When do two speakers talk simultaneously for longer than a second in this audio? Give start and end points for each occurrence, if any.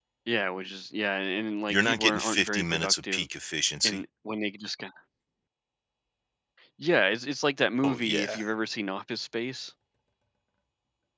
1.7-3.3

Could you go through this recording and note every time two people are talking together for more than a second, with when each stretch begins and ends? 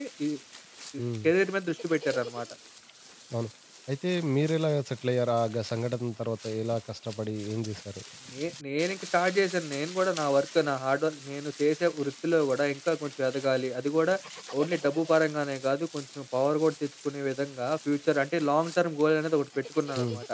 none

